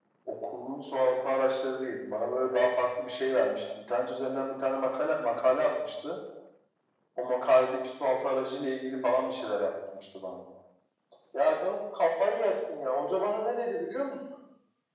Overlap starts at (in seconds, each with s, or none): none